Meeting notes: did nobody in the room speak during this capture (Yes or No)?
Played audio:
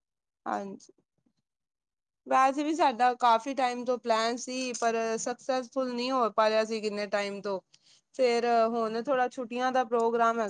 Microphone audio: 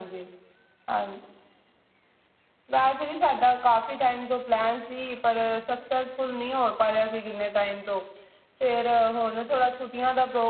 Yes